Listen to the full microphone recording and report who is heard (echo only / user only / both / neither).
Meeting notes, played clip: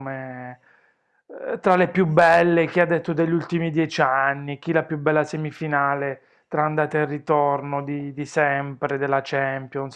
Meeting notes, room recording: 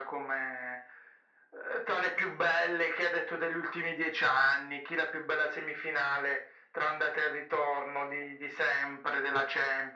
echo only